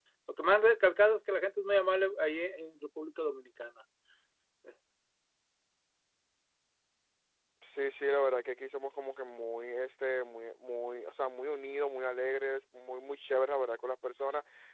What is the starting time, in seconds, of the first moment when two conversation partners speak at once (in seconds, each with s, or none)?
none